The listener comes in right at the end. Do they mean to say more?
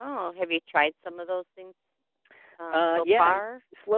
Yes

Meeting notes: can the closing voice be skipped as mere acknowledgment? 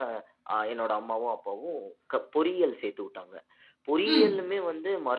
Yes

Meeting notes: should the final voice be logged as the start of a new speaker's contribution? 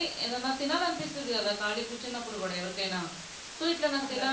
No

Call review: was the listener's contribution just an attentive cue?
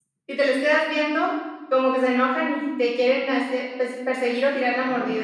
No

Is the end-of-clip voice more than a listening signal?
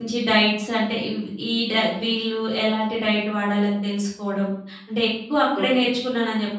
No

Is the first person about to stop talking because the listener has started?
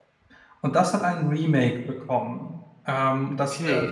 Yes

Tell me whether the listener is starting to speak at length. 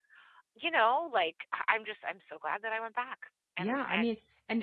Yes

